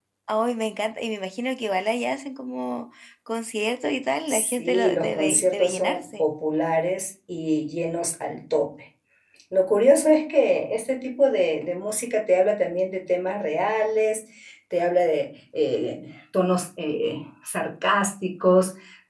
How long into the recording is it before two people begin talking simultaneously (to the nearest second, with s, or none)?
4 s